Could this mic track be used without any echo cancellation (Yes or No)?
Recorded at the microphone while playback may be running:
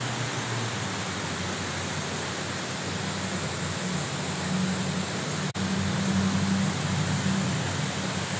Yes